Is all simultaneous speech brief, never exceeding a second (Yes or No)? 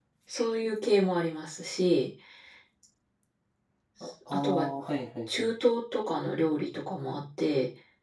Yes